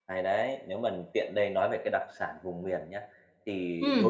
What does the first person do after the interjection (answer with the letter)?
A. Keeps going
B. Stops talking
A